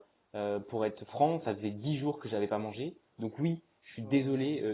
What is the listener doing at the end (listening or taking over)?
listening